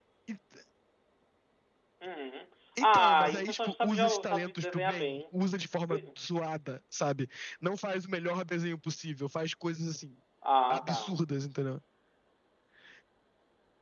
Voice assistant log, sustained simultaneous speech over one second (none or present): present